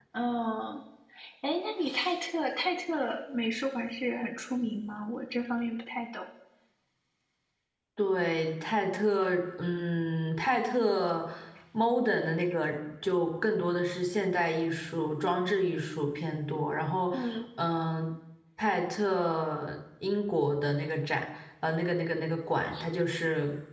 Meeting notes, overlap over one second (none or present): none